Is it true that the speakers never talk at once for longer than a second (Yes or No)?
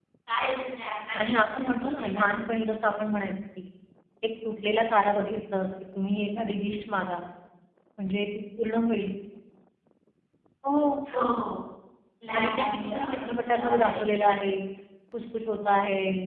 No